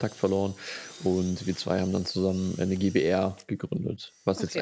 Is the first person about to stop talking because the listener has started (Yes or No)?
Yes